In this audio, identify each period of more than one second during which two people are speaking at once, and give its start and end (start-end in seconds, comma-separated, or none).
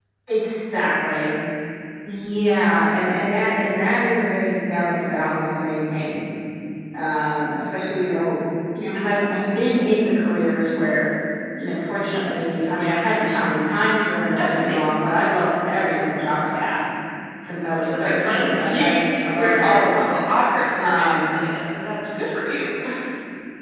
17.9-20.1